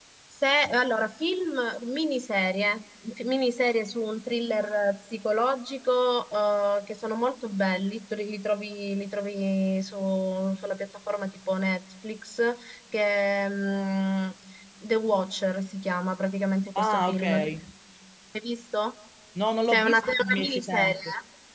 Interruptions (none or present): present